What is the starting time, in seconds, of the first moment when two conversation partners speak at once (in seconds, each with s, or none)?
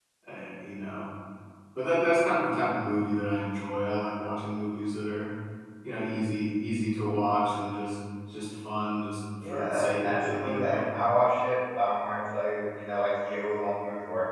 9.4 s